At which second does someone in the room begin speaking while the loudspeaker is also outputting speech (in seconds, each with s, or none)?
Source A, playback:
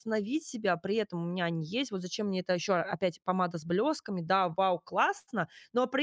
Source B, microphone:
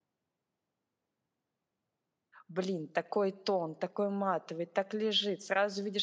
2.5 s